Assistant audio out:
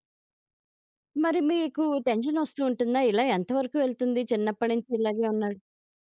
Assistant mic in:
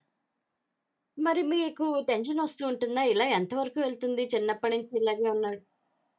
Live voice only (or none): none